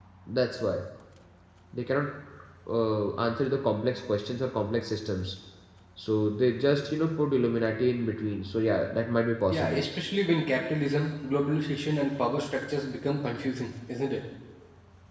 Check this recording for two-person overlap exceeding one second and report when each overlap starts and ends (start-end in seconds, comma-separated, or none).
none